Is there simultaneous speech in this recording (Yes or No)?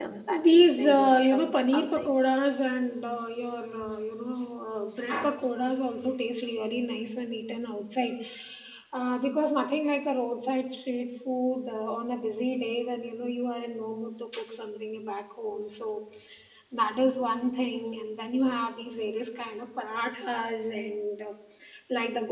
Yes